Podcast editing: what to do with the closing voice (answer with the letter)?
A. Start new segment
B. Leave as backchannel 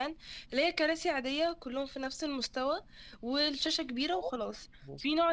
B